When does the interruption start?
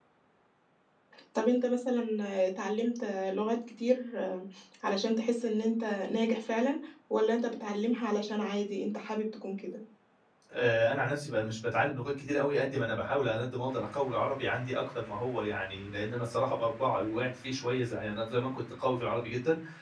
none

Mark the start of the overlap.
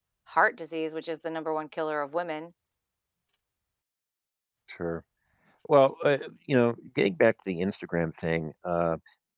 none

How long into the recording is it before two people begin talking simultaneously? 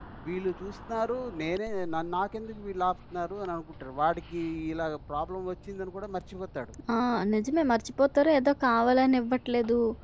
none

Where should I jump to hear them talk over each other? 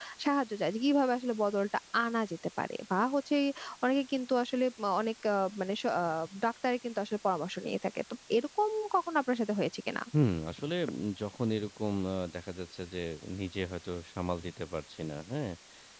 none

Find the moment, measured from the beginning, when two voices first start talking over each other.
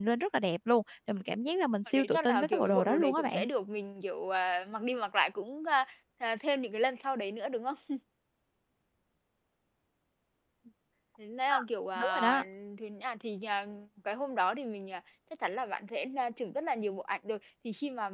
1.9 s

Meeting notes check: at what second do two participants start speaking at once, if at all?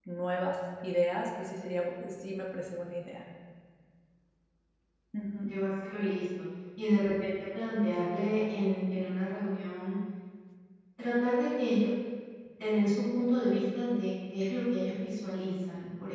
none

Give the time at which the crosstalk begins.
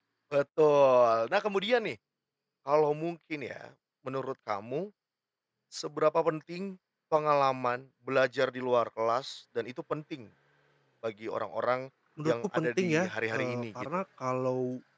12.2 s

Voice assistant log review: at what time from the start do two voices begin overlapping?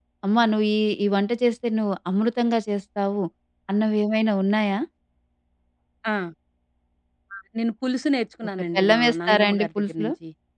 8.6 s

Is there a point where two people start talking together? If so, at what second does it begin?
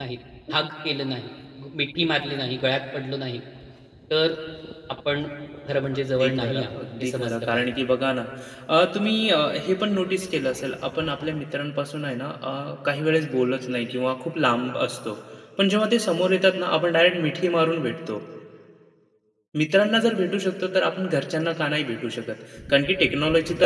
6.2 s

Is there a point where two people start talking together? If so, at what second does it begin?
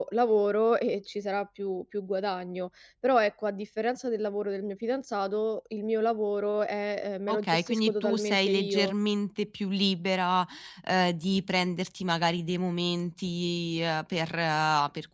7.3 s

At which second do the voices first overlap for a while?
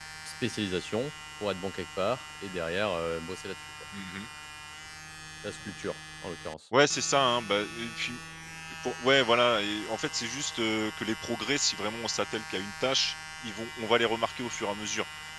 none

